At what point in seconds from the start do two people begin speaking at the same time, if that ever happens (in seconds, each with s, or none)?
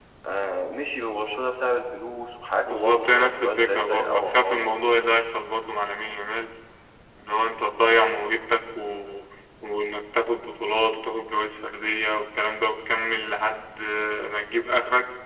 2.6 s